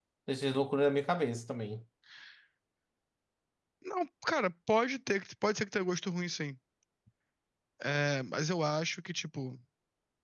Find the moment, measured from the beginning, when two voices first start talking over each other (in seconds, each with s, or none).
none